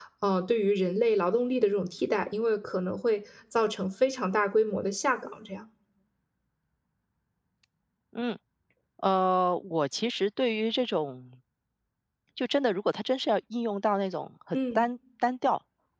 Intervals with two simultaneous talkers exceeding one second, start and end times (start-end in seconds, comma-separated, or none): none